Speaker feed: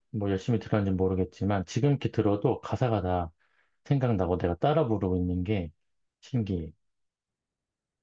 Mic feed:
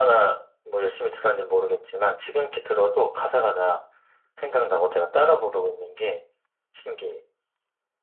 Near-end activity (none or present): none